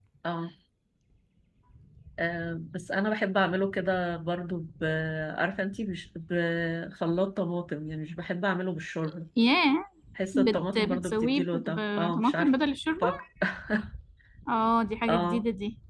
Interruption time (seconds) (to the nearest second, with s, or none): 10 s